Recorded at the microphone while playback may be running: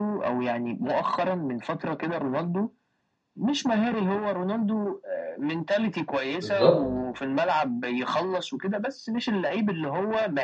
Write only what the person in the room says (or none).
بالظبط